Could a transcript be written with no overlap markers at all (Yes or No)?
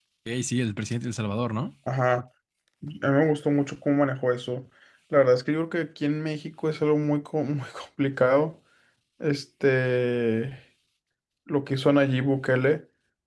Yes